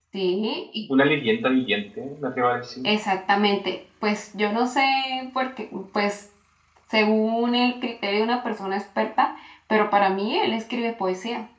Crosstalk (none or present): none